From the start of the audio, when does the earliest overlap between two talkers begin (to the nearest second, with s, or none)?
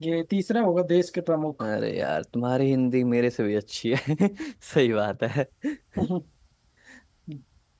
none